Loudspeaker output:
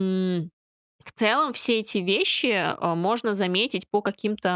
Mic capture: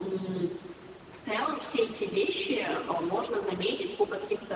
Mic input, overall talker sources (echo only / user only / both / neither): echo only